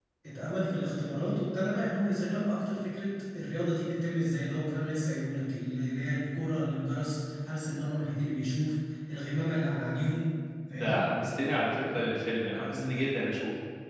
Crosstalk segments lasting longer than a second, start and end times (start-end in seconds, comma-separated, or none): none